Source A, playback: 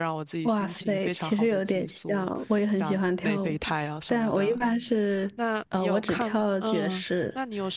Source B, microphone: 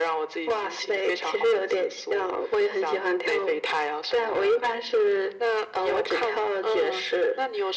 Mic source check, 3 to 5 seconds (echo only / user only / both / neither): echo only